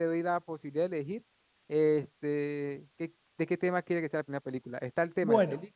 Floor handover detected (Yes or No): No